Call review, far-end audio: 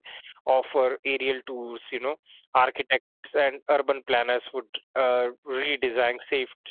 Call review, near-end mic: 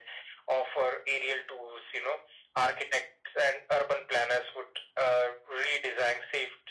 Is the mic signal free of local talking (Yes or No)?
Yes